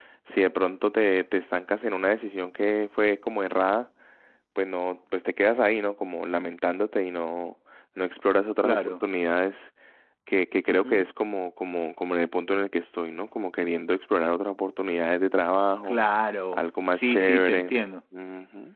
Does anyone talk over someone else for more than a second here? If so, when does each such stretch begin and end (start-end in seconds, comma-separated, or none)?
16.5-17.7